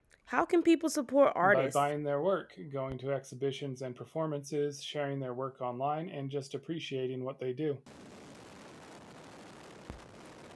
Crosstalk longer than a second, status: none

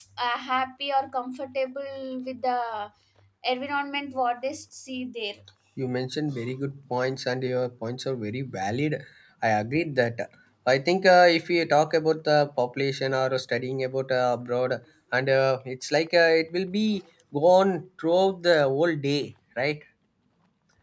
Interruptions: none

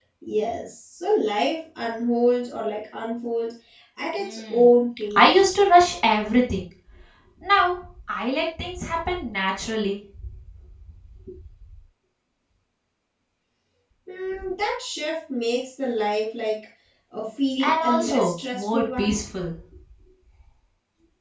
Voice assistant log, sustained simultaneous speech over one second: present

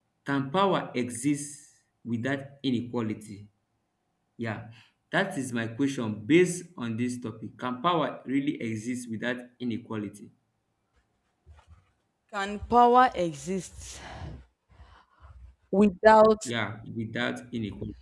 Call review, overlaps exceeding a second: none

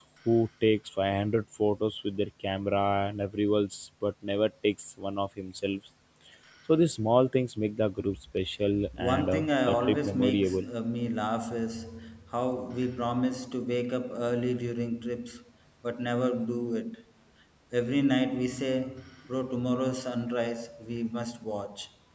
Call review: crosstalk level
present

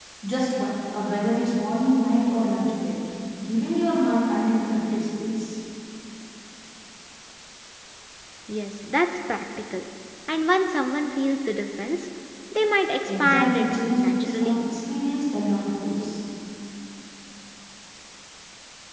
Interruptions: present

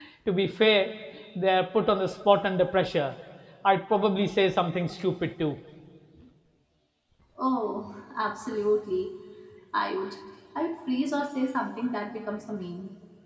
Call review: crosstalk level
none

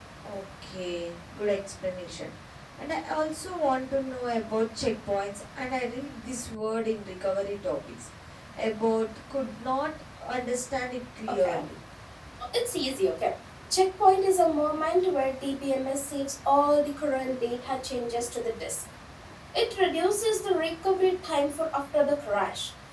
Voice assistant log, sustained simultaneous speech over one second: none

